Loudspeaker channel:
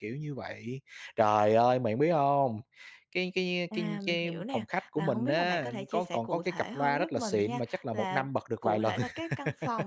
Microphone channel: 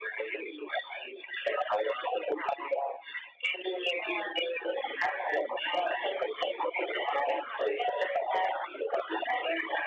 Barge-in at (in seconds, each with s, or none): none